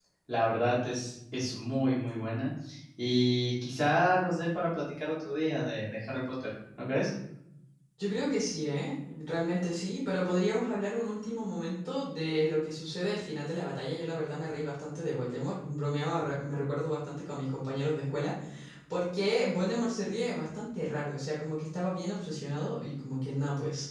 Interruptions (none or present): none